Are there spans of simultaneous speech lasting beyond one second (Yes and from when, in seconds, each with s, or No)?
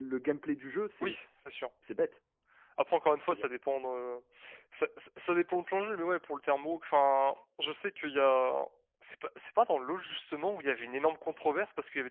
No